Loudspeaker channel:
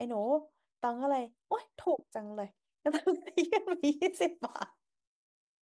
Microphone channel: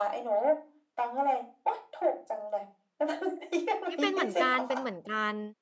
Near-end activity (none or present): present